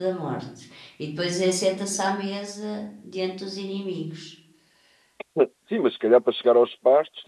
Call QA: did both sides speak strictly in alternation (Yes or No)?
Yes